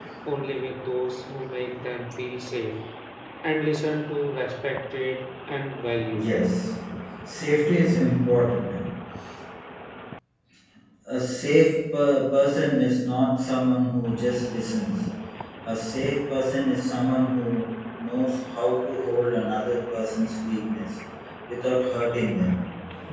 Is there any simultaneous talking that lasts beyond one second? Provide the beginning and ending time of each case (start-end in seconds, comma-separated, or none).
none